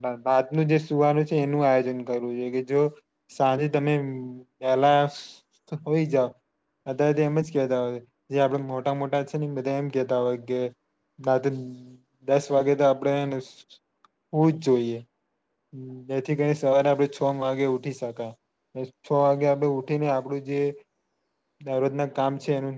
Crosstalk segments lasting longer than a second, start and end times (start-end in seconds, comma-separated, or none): none